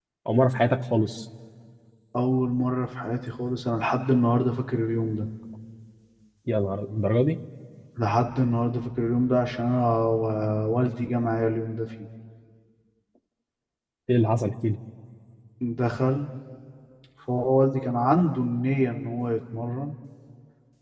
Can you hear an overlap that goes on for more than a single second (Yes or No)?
No